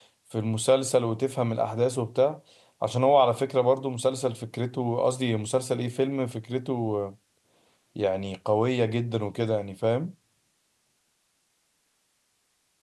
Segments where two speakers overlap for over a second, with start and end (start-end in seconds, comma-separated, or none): none